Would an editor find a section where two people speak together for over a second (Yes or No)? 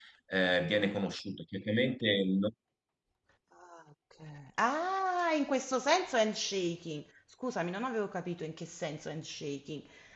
No